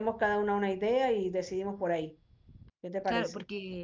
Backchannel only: No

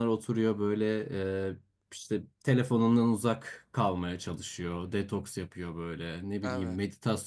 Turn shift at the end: No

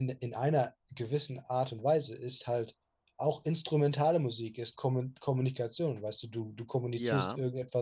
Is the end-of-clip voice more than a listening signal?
No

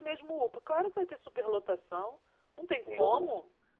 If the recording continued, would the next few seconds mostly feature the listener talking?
Yes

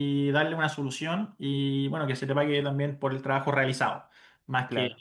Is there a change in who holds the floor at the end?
Yes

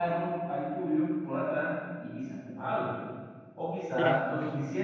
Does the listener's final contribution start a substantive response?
No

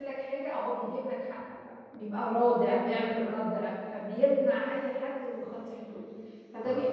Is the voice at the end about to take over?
No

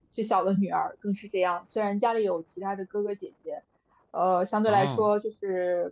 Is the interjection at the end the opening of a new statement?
No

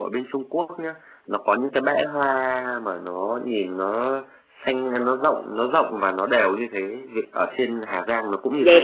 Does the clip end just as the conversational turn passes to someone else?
Yes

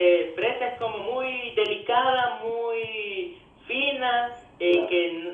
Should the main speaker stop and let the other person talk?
No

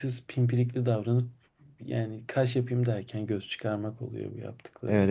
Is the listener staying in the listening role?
No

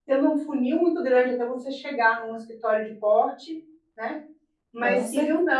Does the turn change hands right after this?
No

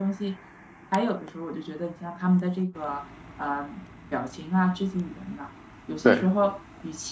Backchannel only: Yes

